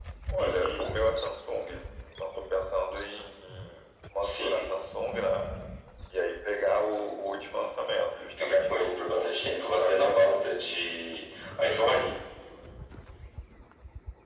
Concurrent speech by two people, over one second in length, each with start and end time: 8.4-10.3

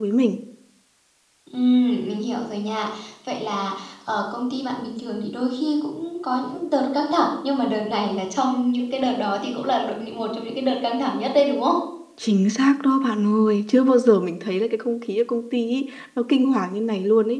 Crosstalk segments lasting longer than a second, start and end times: none

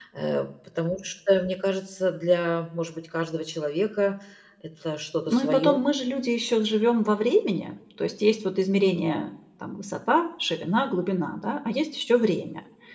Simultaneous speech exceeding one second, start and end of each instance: none

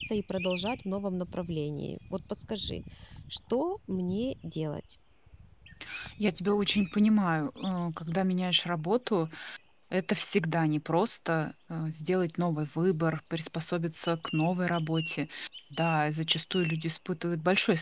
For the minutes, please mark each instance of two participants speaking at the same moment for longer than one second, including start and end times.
none

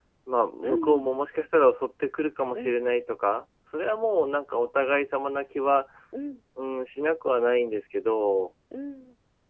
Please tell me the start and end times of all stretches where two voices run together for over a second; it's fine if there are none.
none

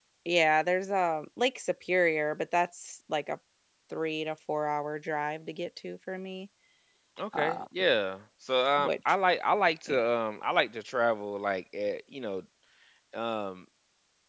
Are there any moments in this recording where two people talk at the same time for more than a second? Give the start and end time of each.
none

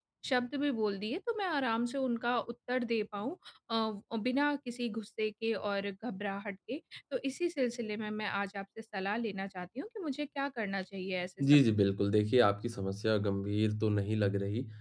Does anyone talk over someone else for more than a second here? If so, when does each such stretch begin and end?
none

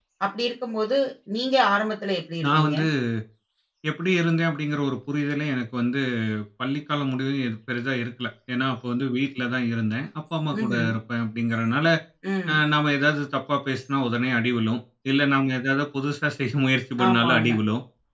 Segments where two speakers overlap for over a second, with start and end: none

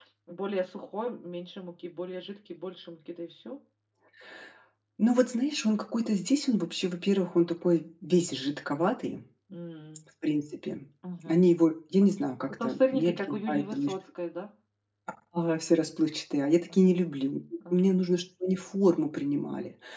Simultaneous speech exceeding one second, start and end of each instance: 12.6-13.9

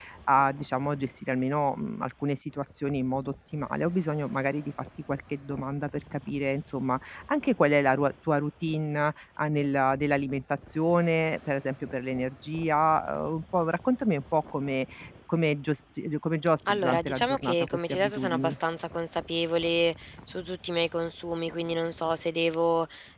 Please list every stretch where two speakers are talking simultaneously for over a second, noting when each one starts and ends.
16.7-18.6

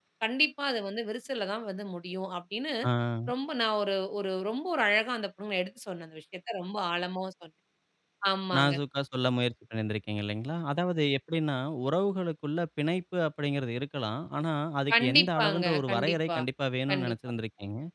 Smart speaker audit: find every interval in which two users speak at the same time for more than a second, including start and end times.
14.9-16.4

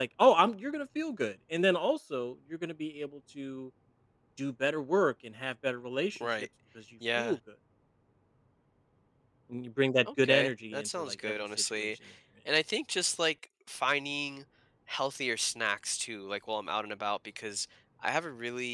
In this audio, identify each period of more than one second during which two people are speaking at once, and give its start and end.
10.2-11.9

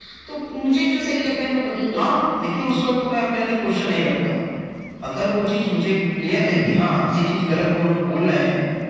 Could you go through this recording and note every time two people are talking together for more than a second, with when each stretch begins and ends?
none

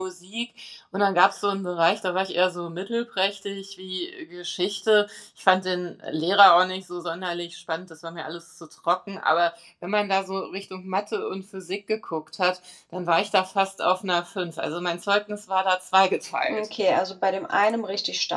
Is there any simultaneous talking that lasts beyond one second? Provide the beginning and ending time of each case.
none

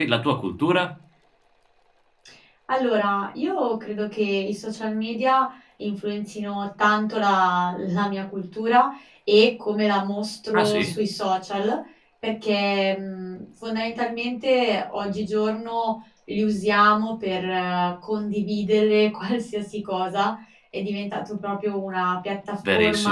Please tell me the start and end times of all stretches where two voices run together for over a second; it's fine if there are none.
none

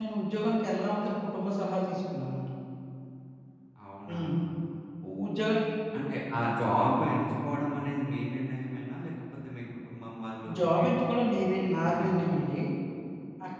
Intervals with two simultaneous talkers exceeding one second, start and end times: 10.6-12.2

